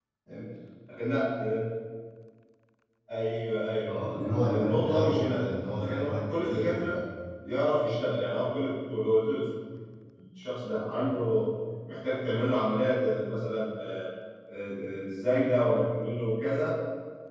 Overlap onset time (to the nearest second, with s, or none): 4 s